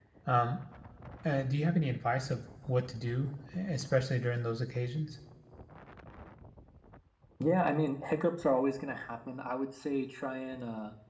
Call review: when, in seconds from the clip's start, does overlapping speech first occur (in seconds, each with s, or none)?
none